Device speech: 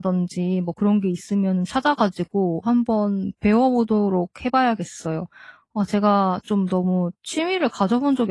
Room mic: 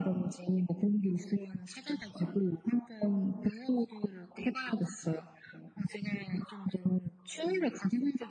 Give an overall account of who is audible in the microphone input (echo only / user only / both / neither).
echo only